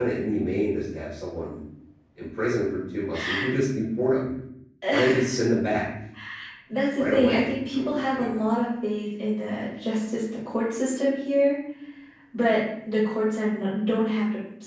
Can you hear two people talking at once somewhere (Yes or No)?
Yes